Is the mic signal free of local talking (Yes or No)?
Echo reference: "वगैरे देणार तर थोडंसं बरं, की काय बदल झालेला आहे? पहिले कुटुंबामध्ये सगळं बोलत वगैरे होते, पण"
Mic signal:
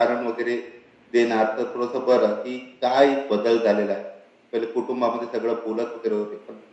Yes